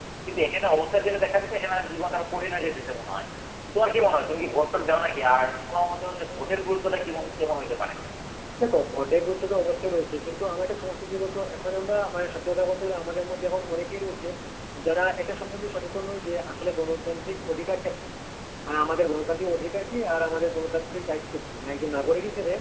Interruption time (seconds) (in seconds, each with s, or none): none